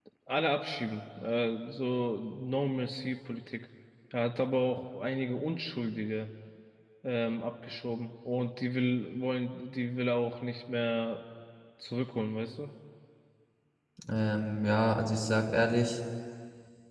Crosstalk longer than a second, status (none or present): none